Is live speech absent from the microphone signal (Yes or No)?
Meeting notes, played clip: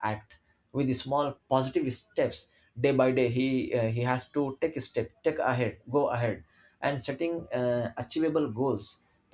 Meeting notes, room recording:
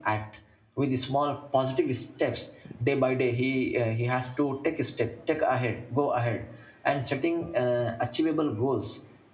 Yes